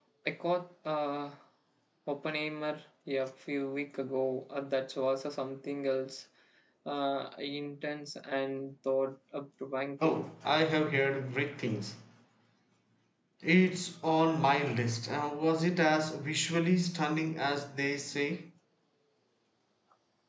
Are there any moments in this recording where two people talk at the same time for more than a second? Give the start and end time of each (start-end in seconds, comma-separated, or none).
none